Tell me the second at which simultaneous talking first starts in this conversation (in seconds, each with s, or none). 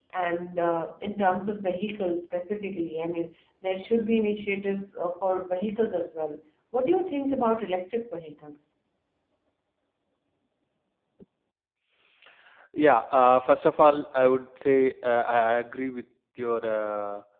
none